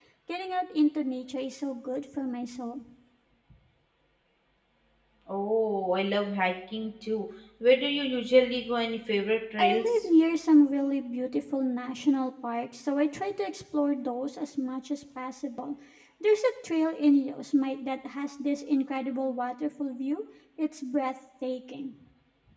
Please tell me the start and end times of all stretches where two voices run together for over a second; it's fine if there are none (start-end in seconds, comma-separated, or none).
none